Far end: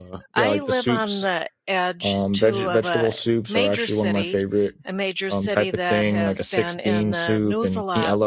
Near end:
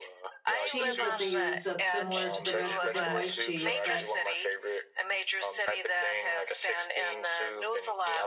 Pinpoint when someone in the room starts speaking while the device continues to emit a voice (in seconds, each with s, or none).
0.6 s